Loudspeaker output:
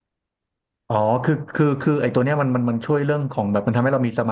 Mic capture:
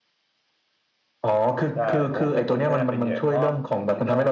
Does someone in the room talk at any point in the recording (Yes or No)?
Yes